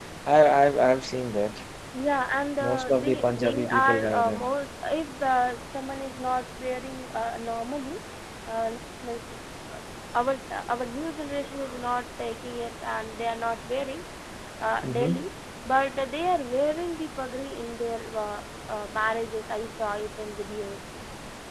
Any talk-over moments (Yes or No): Yes